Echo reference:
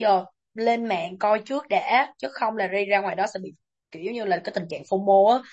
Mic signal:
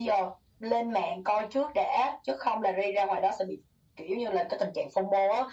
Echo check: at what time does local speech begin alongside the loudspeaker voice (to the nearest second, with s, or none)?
none